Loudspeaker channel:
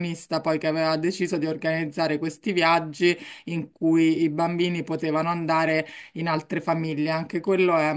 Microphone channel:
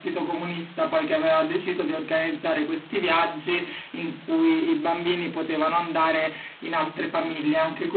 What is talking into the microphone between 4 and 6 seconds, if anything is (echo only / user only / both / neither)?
echo only